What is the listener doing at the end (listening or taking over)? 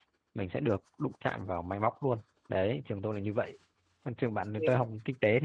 listening